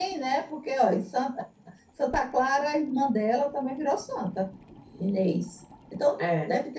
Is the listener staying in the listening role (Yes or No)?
Yes